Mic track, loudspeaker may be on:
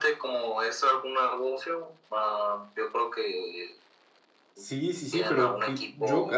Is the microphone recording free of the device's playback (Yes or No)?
No